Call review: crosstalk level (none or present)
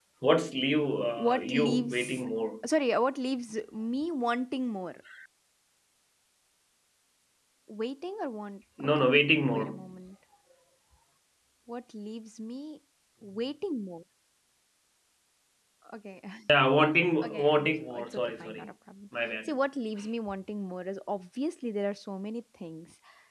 present